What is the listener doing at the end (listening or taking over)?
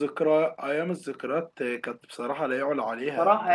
taking over